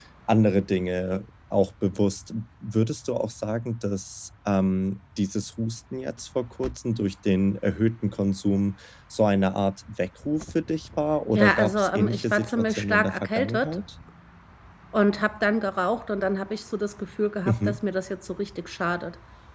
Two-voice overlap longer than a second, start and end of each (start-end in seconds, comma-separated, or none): 11.3-13.7